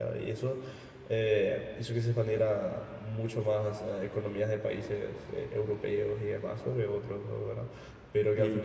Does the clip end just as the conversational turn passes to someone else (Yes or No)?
No